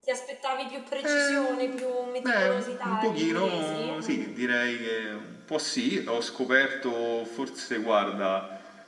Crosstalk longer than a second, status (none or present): present